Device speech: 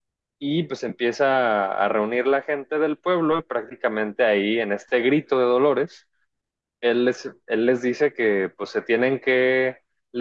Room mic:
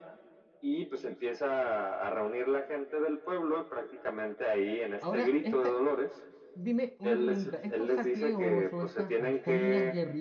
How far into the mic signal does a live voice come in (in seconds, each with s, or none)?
5.0 s